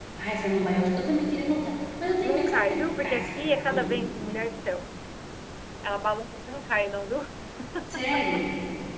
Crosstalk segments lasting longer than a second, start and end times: 2.2-4.1

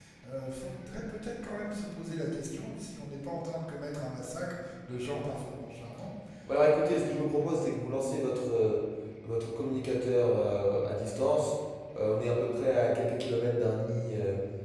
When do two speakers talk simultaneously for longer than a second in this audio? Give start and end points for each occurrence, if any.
none

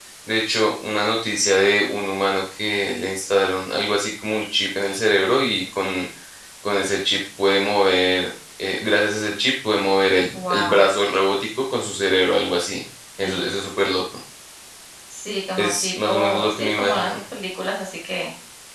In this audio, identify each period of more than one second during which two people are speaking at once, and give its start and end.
15.6-17.2

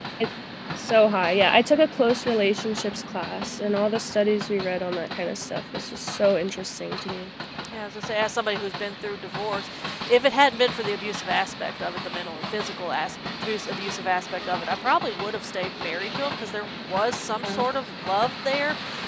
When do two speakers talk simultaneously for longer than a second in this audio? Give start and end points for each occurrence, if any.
none

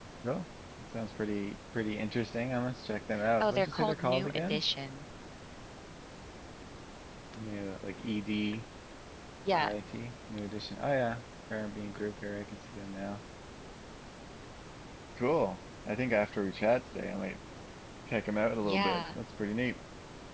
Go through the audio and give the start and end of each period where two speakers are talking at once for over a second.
3.4-4.6

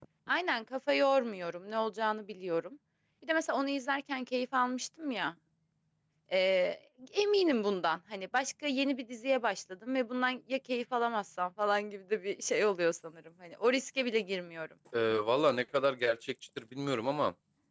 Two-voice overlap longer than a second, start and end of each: none

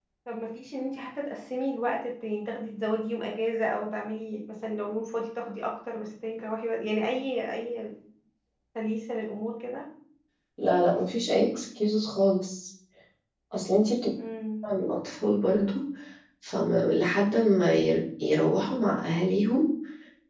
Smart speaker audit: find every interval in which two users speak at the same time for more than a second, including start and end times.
none

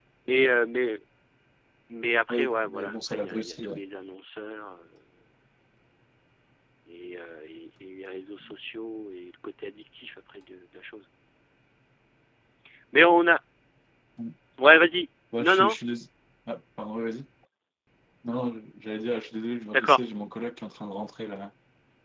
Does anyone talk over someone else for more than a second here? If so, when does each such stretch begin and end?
2.3-3.7

